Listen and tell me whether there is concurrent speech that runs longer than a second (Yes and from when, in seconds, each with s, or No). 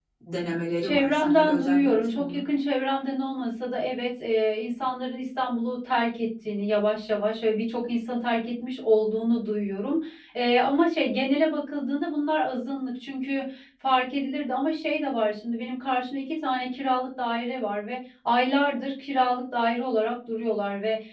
Yes, from 0.8 s